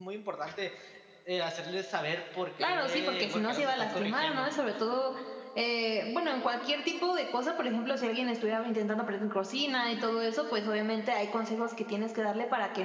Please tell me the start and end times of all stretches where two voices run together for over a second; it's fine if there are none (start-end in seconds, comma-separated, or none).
2.7-4.5